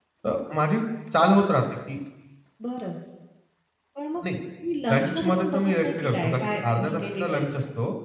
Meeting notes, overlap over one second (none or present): present